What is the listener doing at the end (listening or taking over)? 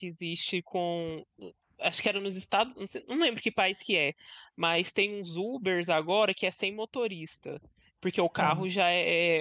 listening